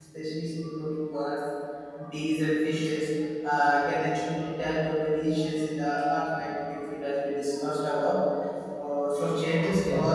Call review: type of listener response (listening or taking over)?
listening